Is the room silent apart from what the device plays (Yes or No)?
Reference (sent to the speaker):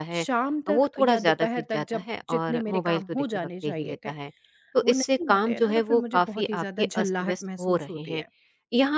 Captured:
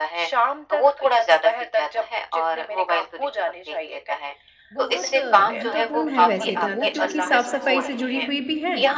No